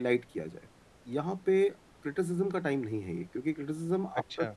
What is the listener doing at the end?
listening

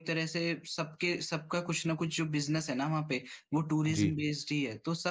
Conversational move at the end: listening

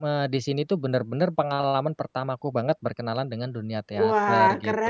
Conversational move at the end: taking over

